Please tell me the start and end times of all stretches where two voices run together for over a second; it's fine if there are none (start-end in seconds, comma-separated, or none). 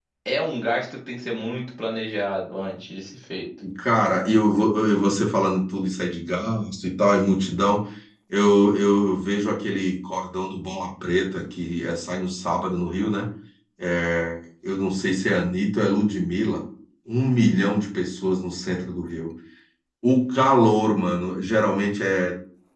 none